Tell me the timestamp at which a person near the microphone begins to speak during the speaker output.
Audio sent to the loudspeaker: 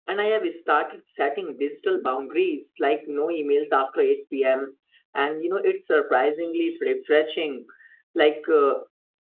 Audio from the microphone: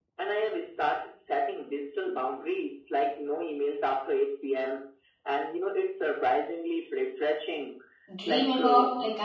8.2 s

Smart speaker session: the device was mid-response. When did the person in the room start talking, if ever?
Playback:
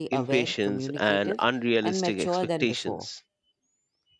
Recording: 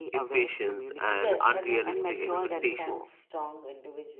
1.1 s

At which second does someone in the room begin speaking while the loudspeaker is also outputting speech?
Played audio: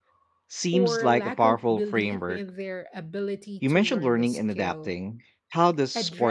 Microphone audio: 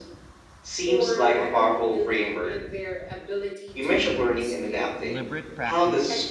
5.0 s

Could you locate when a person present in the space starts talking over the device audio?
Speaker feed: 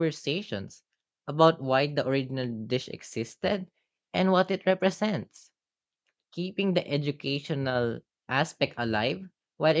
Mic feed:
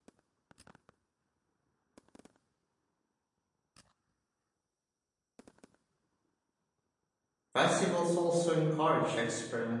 7.5 s

